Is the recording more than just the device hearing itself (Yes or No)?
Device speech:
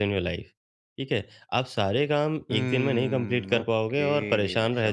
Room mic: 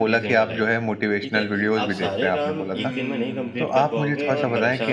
Yes